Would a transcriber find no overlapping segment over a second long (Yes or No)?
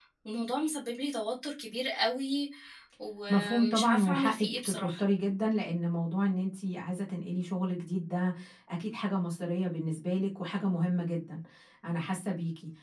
No